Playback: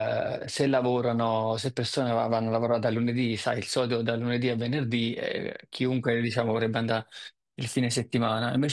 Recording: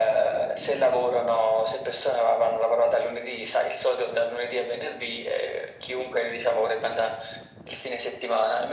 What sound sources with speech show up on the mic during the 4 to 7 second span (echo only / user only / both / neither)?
echo only